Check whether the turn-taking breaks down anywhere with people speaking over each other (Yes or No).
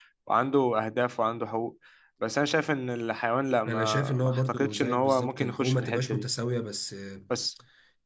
Yes